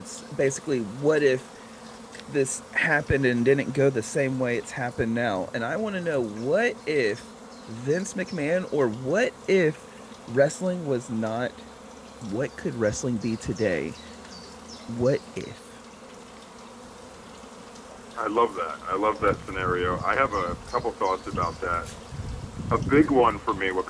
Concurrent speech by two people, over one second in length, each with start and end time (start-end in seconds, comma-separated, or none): none